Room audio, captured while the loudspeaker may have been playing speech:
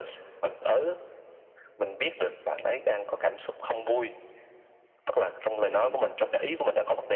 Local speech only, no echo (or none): ừm,